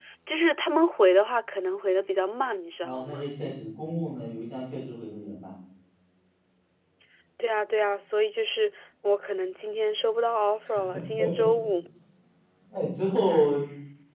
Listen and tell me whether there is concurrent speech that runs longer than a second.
No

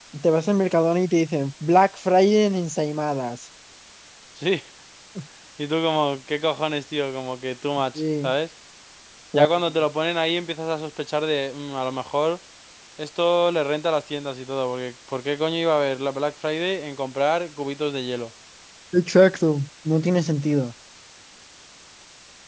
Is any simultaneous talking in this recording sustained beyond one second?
No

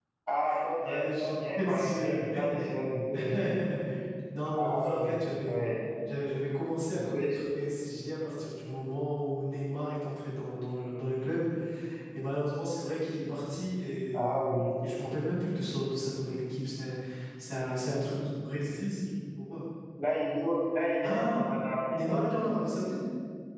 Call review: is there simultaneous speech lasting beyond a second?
Yes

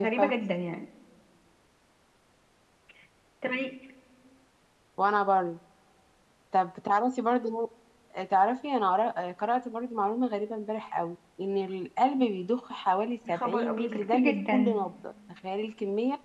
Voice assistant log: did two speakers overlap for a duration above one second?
Yes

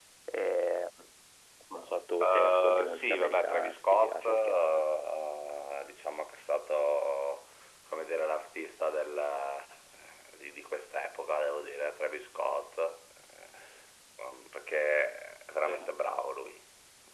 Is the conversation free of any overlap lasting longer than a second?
No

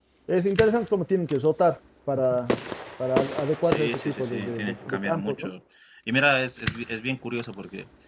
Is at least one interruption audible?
Yes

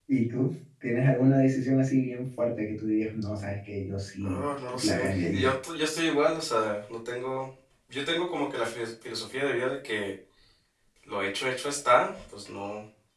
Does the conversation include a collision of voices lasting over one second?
Yes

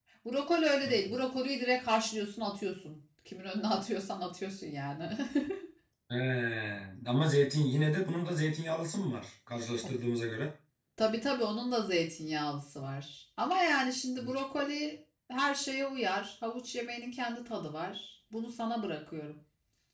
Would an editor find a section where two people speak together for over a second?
No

